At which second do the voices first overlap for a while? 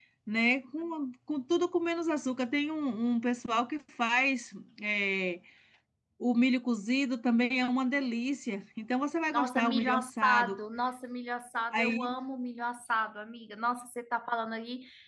9.3 s

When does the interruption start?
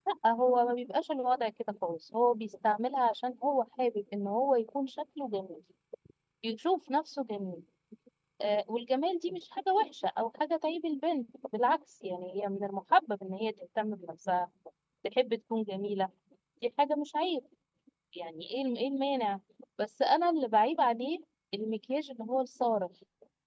none

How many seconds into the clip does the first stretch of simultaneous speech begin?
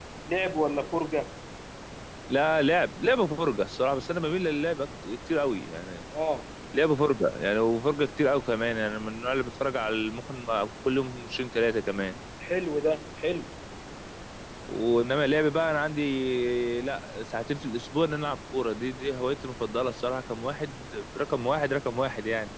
none

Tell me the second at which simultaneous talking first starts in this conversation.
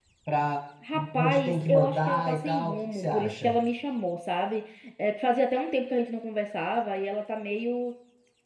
1.2 s

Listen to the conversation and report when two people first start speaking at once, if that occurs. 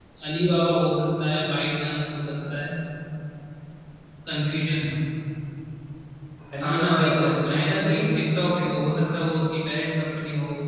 6.6 s

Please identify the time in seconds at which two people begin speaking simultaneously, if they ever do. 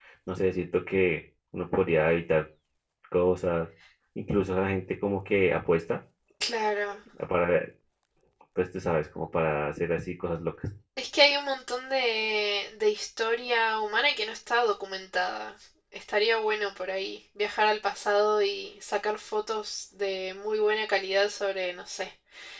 none

